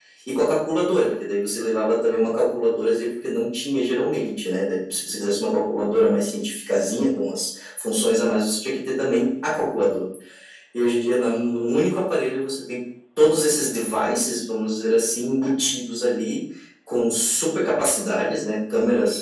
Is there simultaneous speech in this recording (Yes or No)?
No